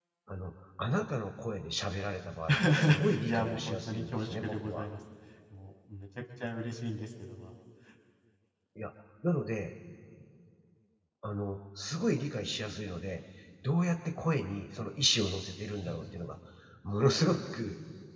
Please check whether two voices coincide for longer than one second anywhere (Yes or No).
Yes